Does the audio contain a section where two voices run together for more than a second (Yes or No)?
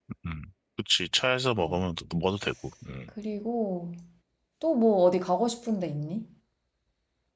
No